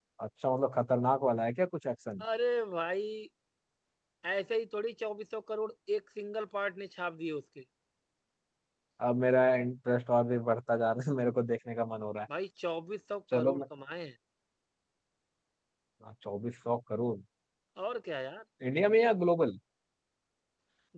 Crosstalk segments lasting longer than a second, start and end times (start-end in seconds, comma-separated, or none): none